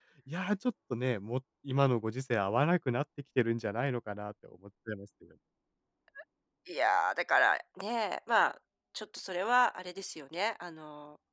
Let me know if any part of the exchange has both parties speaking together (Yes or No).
No